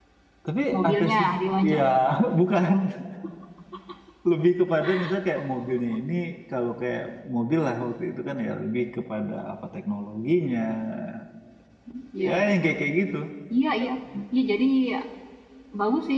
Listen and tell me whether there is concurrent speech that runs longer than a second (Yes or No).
No